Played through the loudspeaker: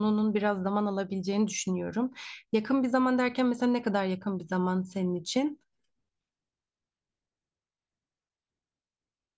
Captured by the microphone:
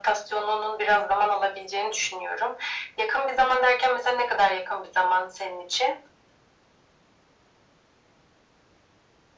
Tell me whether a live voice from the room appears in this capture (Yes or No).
No